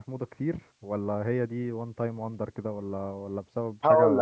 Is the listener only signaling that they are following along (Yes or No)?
No